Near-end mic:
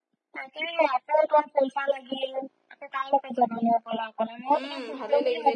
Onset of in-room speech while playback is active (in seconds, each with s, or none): 4.5 s